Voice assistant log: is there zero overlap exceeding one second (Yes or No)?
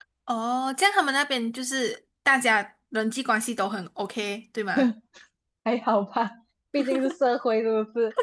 Yes